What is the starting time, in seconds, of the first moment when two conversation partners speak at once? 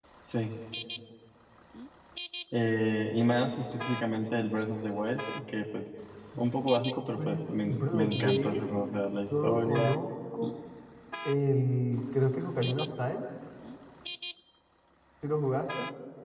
7.0 s

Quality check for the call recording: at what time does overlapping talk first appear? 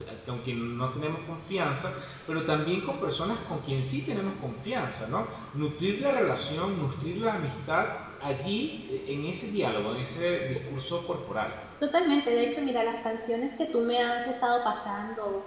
none

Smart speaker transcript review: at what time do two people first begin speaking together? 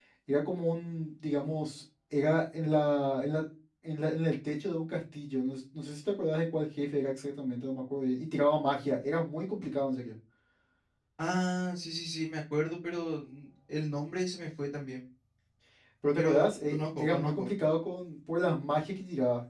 16.2 s

